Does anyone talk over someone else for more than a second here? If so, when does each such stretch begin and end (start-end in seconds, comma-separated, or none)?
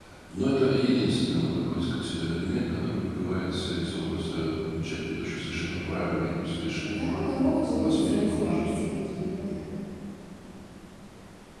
6.8-8.8